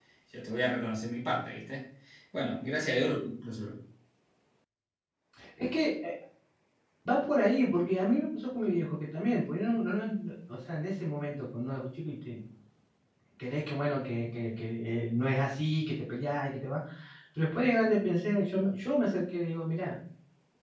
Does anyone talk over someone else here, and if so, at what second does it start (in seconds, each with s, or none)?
none